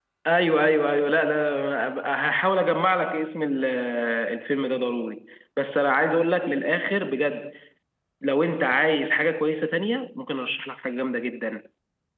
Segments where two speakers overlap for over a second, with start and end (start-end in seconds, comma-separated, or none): none